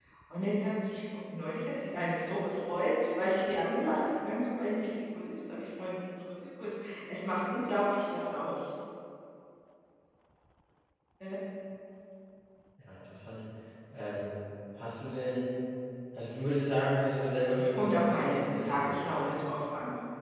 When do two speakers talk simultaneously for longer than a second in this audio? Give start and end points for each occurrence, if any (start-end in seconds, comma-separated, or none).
17.5-19.4